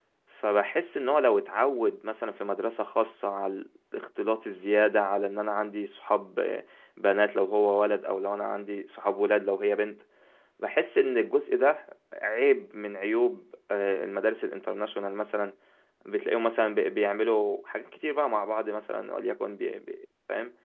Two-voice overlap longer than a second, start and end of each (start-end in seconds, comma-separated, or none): none